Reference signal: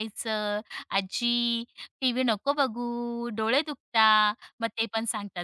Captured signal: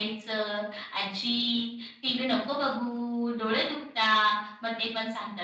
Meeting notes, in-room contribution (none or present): none